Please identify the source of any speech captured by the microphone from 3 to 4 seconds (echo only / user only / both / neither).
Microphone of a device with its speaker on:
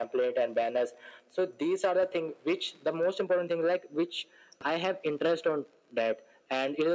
echo only